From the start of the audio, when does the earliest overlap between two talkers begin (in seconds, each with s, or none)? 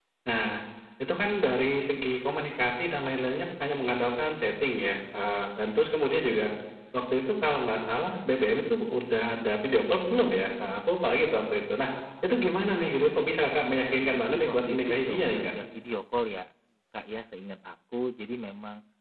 13.7 s